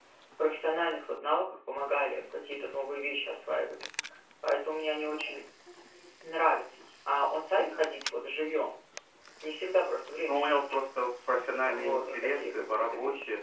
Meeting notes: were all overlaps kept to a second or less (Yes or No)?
No